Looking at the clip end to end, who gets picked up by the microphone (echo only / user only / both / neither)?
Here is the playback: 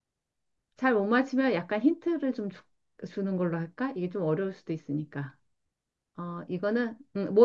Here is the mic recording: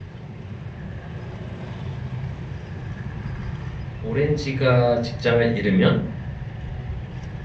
user only